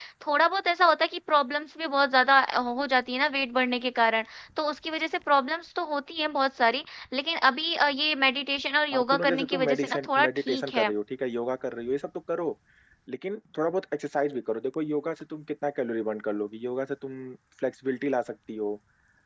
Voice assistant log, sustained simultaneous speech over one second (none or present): present